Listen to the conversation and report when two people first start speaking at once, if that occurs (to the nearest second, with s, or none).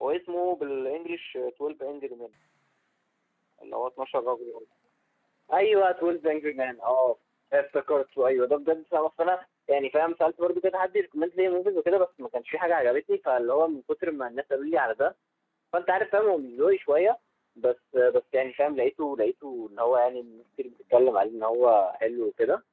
none